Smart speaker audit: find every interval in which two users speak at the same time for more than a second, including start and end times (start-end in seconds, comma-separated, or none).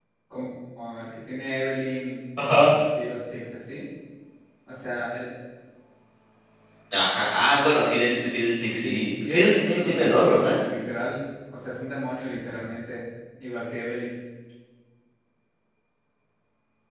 8.7-10.5